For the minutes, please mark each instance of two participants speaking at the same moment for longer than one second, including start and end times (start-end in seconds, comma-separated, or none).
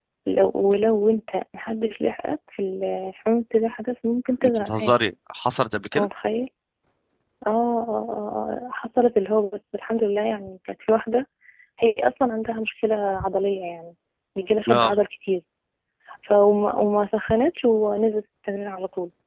none